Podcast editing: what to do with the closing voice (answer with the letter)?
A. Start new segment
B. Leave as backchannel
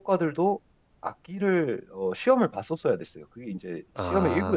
A